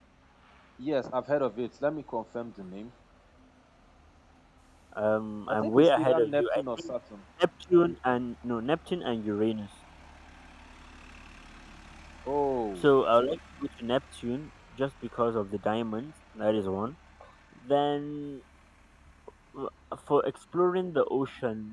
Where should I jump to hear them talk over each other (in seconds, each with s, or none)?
5.5 s